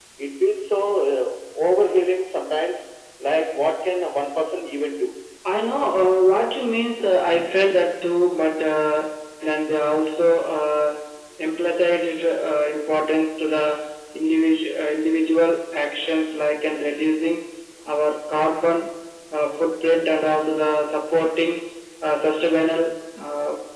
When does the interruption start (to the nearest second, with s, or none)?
none